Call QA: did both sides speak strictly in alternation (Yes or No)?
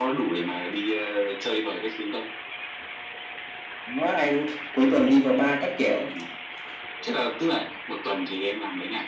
Yes